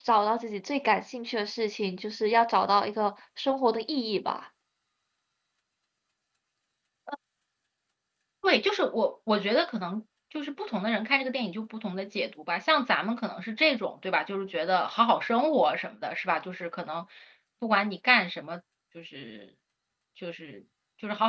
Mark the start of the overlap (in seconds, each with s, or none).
none